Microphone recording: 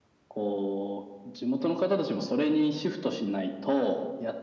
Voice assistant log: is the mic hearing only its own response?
Yes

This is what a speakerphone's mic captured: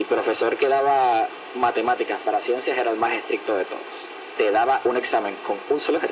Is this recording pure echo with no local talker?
Yes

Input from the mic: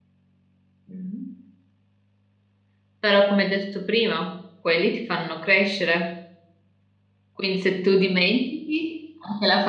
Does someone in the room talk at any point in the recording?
Yes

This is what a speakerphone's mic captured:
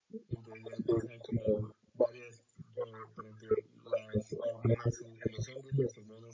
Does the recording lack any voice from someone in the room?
Yes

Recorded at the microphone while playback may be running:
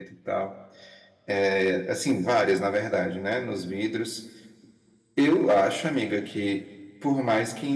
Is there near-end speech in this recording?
Yes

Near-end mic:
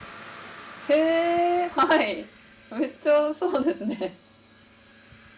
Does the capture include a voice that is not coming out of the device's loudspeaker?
Yes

